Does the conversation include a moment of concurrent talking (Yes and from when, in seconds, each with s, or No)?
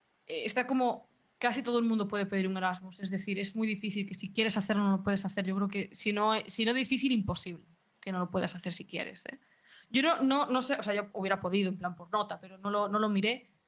No